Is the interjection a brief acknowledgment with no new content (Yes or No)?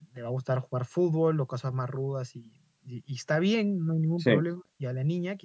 Yes